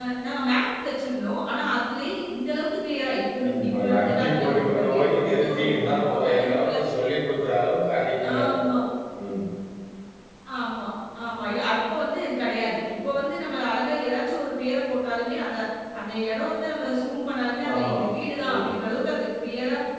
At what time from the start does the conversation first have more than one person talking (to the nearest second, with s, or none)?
3 s